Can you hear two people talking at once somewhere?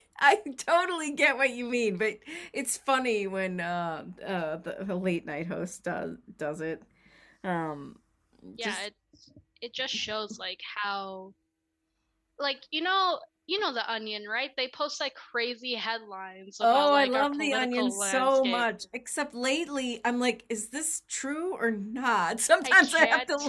Yes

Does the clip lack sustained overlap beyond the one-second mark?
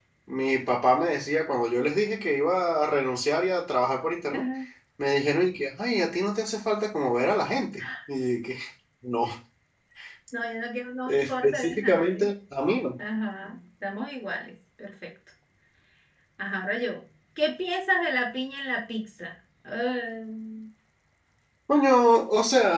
No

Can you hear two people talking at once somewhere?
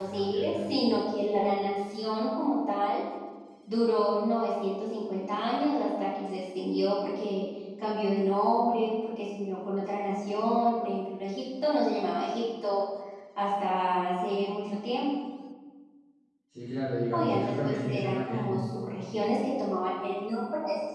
Yes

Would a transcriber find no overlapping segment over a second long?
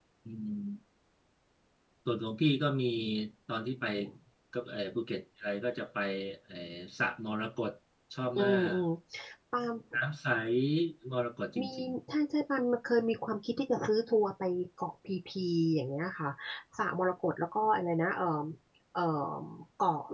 Yes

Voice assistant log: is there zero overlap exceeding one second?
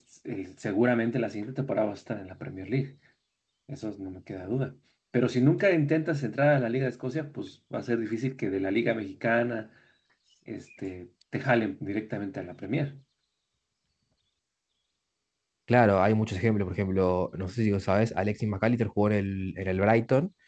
Yes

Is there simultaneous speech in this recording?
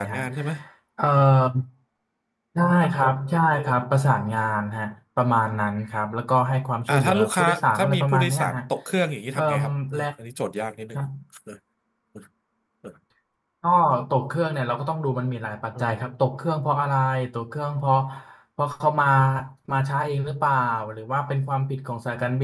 Yes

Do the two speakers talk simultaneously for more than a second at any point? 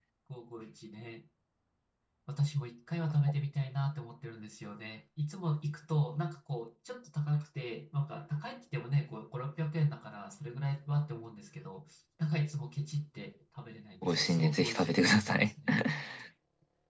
Yes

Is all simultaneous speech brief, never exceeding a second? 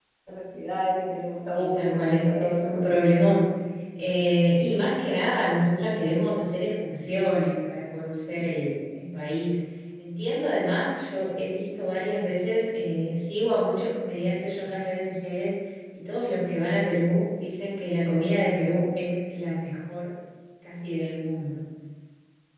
No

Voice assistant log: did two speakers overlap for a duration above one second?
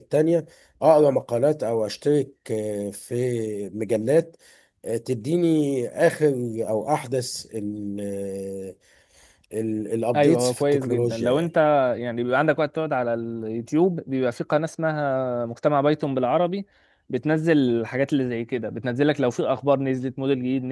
Yes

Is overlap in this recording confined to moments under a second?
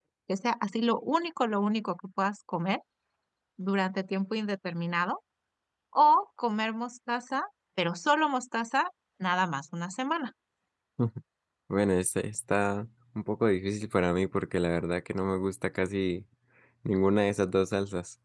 Yes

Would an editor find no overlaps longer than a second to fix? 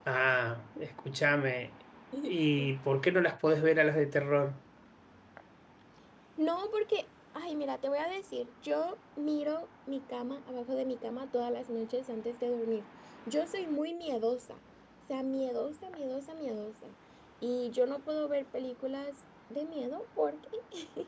Yes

